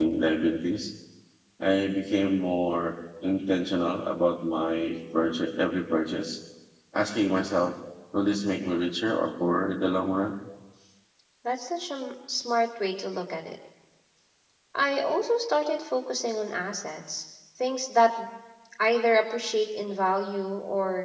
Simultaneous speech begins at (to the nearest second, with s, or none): none